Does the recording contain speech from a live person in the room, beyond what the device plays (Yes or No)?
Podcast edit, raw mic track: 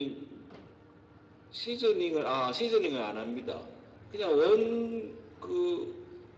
No